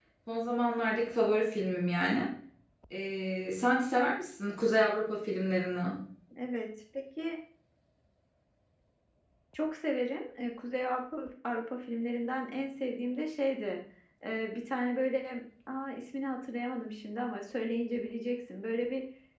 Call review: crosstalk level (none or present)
none